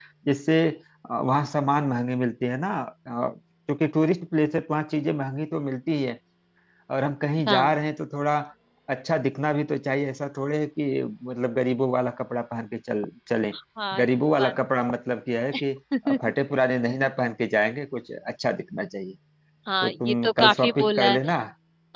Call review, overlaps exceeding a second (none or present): present